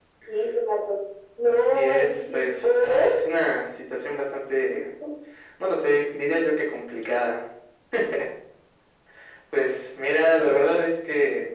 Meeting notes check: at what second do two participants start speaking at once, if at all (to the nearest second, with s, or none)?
1 s